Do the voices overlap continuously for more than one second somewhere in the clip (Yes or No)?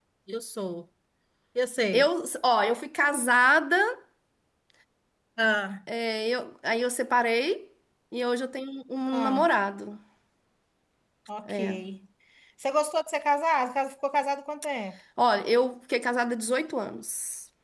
No